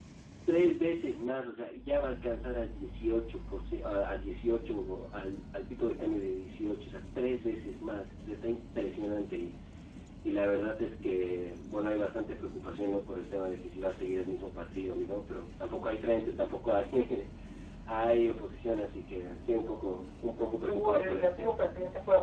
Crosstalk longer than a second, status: present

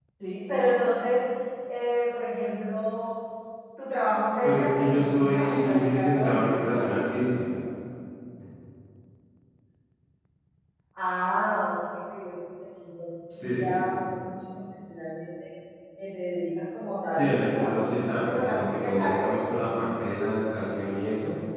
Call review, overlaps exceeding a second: present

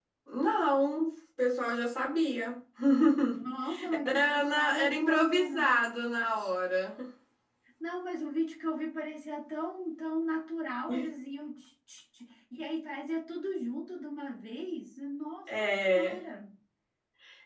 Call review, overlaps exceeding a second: present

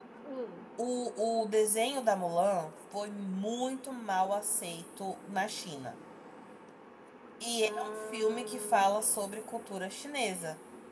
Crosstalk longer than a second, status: present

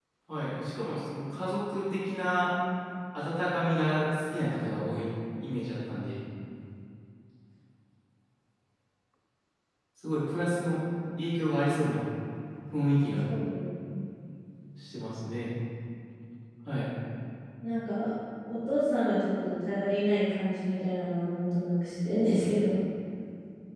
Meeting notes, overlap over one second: none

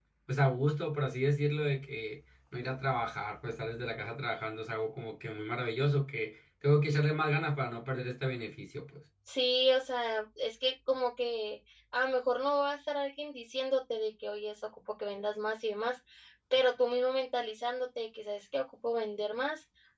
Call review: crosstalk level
none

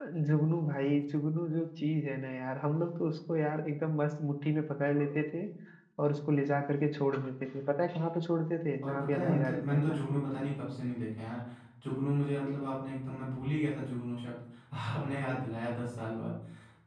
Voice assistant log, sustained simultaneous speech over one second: present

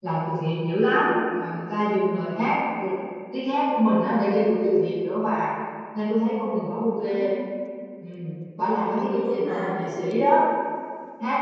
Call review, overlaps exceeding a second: present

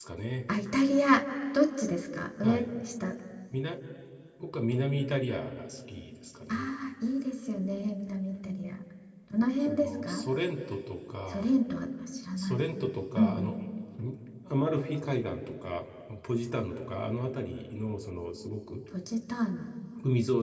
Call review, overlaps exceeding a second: none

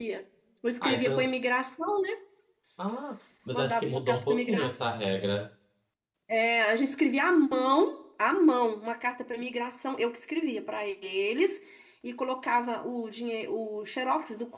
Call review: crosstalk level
present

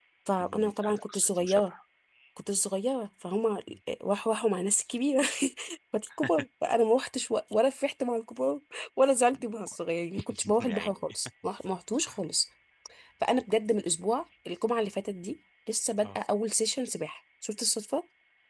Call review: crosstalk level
present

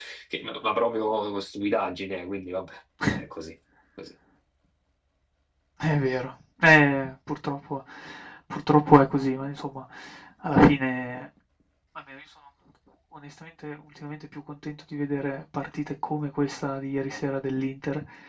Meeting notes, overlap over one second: none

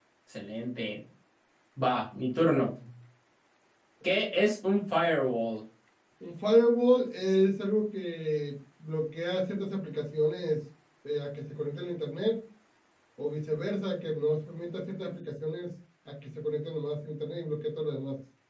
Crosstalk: none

